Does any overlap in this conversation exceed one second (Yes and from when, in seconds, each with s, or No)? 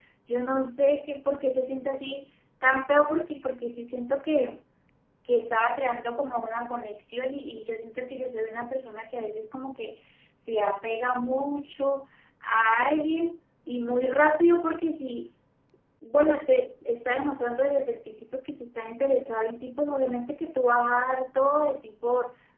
No